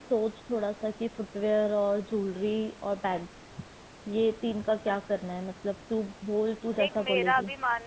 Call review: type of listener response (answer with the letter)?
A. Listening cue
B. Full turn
B